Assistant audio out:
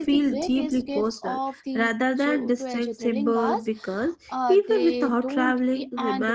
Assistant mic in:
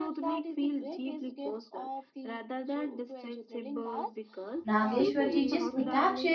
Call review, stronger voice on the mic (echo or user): user